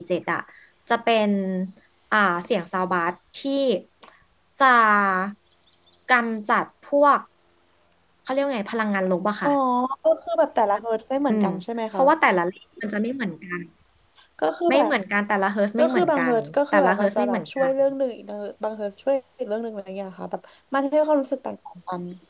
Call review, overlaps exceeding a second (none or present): present